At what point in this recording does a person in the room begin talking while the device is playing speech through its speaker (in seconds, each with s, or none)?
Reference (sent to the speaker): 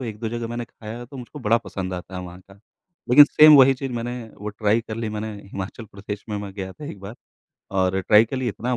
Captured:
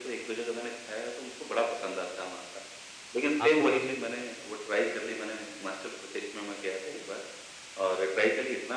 3.4 s